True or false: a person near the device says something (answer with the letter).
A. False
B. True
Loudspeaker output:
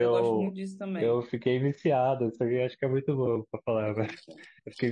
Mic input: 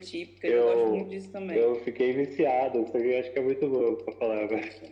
A